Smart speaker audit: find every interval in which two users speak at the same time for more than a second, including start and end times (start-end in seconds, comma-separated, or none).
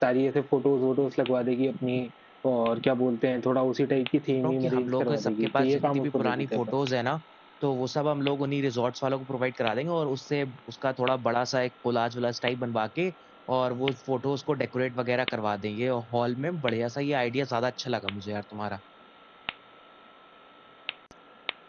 4.4-6.6